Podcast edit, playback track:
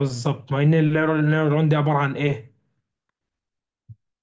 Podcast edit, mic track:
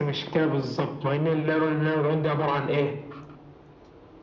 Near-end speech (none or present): none